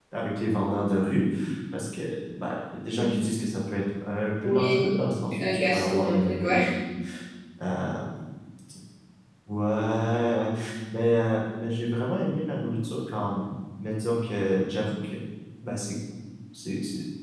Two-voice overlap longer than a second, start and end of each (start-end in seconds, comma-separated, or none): 5.4-6.6